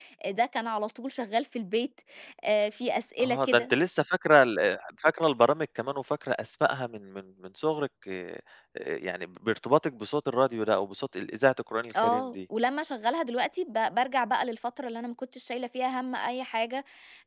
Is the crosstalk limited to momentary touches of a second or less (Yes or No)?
Yes